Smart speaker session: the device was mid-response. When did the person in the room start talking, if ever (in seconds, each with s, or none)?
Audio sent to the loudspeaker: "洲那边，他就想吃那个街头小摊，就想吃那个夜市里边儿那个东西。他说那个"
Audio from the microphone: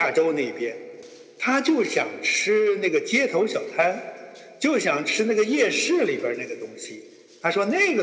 none